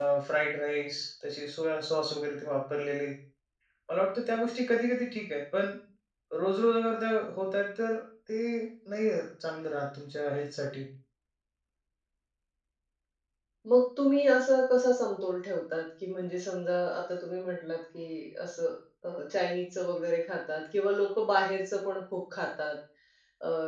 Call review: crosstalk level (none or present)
none